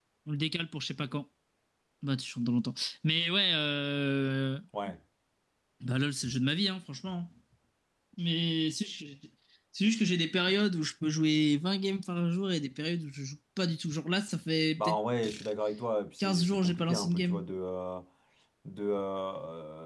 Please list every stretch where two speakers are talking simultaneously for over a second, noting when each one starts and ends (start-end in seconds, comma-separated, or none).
16.2-17.4